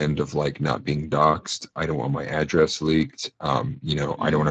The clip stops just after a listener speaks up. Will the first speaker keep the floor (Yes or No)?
Yes